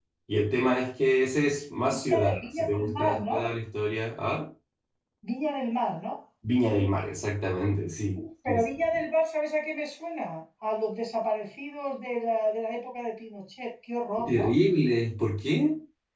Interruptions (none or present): present